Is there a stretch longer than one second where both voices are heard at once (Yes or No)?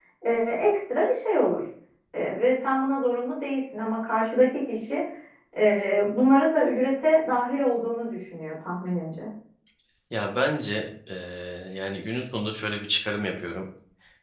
No